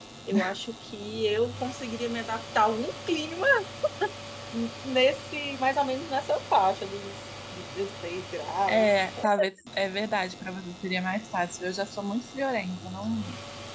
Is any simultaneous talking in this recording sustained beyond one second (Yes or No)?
No